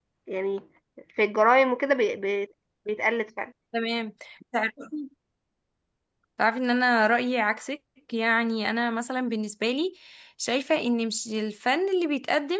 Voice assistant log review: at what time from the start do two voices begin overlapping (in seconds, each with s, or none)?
none